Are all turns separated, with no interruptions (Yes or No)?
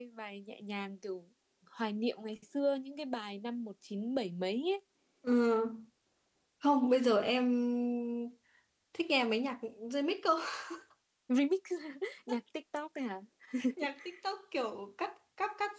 Yes